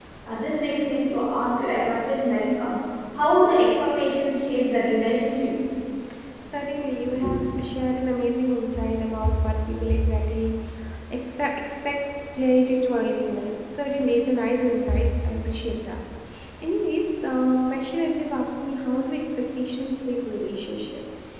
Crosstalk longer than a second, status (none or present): none